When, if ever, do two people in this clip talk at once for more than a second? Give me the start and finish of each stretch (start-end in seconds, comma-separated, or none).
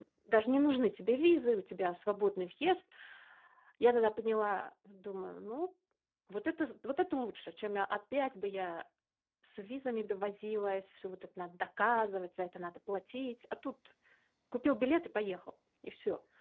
none